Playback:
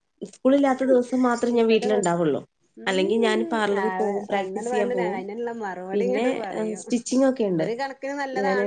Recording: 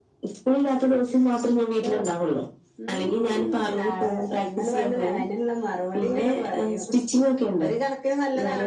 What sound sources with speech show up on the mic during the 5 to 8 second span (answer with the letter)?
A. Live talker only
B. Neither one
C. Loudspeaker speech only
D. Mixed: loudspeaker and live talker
C